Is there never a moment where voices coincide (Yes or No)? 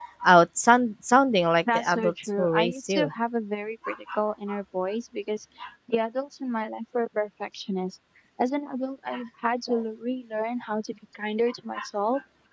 No